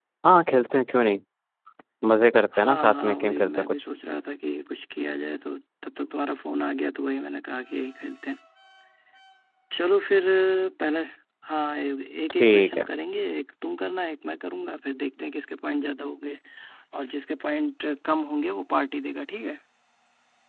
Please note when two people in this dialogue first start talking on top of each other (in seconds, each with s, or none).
2.6 s